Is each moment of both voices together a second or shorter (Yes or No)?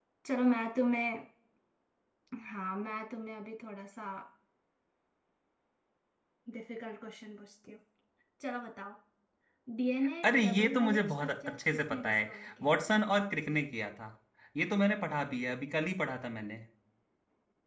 No